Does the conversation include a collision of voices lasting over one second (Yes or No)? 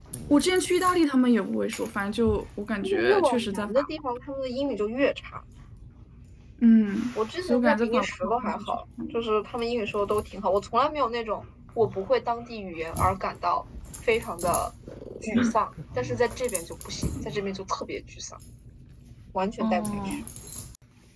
Yes